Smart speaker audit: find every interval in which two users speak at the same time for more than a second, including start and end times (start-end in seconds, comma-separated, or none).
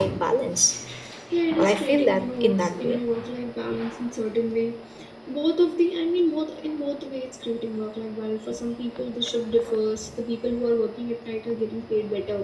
1.6-3.0